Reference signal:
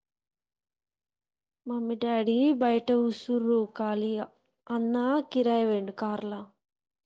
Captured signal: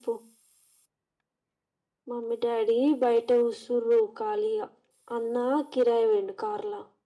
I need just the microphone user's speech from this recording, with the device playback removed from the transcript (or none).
none